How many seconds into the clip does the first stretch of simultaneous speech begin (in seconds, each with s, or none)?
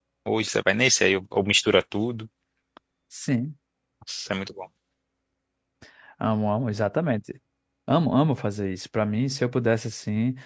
none